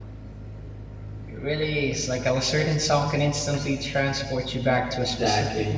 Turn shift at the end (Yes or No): Yes